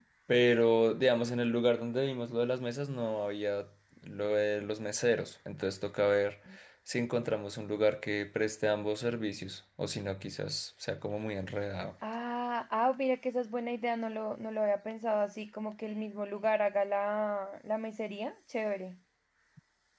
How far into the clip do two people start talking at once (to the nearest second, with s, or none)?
none